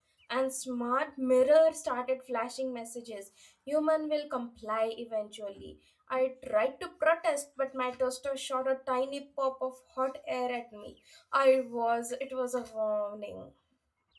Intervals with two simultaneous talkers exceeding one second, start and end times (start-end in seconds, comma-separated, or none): none